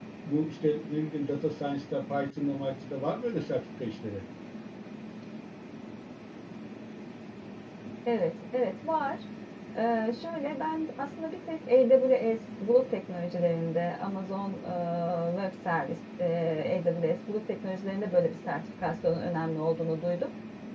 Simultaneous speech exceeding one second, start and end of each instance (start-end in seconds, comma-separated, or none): none